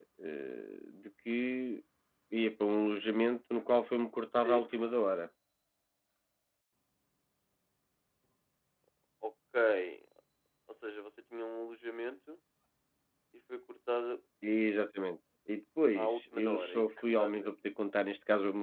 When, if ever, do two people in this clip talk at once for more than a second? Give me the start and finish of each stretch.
15.9-17.5

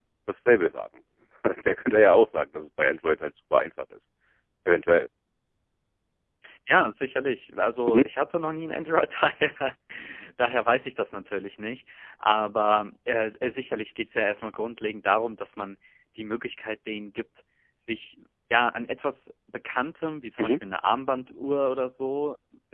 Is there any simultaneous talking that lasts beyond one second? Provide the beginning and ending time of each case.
none

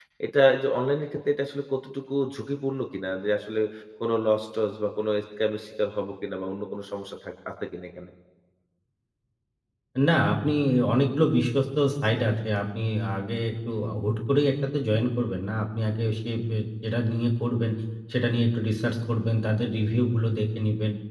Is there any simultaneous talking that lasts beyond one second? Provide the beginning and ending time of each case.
none

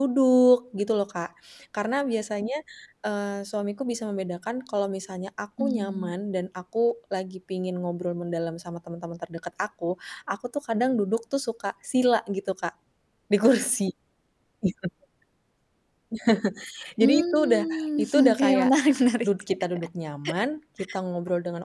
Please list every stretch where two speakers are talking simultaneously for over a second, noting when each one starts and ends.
17.0-18.7

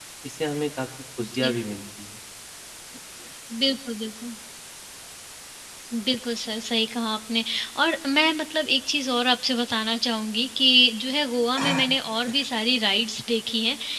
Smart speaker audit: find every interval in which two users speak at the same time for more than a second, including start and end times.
none

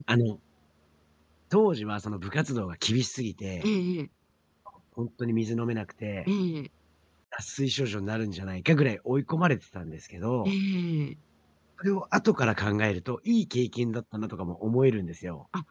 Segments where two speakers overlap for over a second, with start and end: none

